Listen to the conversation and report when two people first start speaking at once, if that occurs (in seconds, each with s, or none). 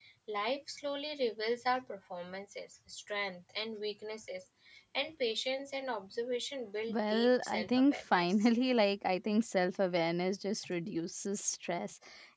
6.9 s